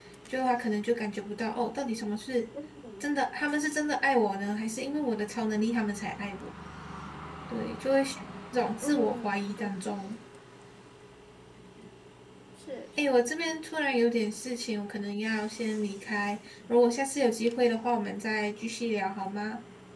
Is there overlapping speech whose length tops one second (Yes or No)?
Yes